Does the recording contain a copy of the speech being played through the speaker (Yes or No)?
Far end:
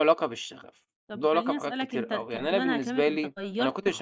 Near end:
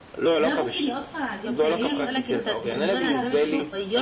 Yes